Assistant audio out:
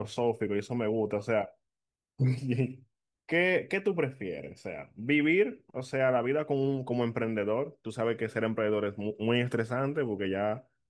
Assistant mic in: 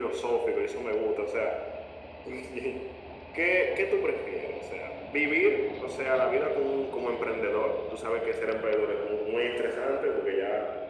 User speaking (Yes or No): No